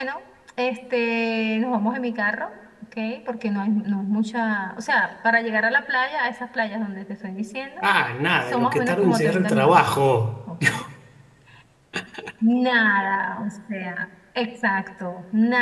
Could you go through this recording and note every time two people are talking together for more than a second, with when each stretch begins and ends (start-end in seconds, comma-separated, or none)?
8.5-9.9